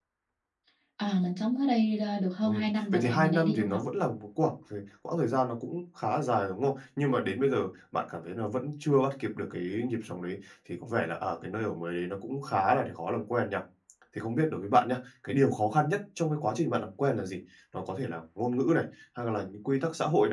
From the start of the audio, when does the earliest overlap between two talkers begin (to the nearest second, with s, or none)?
2 s